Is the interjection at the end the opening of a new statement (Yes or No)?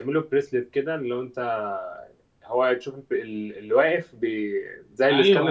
Yes